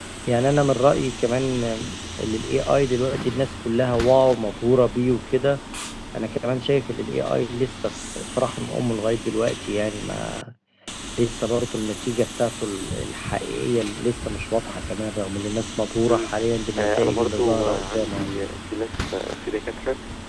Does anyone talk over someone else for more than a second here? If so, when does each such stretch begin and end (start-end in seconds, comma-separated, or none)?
16.7-18.4